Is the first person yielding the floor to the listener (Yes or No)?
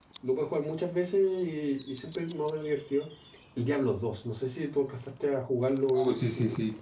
Yes